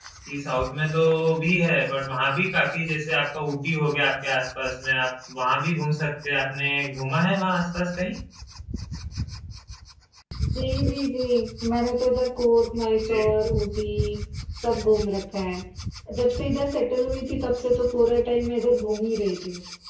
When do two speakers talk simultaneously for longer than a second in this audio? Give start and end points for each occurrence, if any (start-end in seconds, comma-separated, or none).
none